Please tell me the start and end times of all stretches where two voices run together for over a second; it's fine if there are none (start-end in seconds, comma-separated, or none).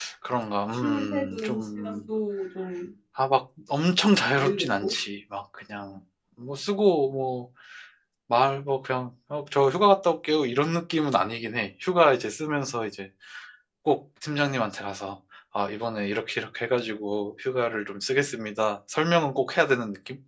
0.7-2.0